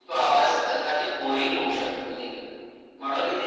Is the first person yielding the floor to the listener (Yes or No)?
No